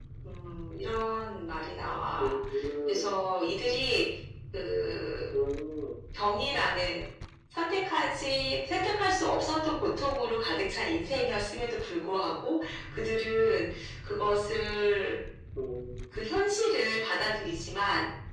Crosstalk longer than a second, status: none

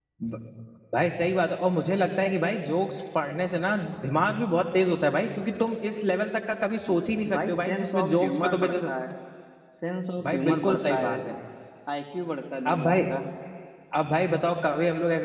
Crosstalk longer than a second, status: present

